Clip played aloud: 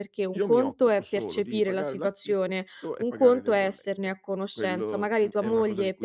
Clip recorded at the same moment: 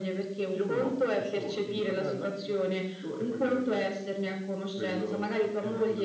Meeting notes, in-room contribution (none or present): none